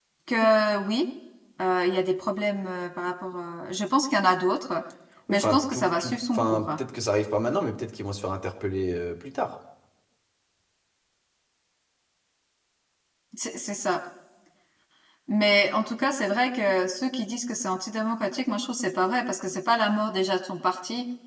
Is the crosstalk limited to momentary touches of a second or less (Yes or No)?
No